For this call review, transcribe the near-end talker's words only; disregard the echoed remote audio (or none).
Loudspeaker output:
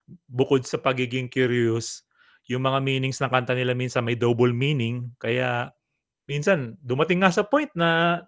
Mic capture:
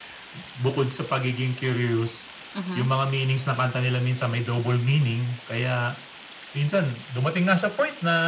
Mhm.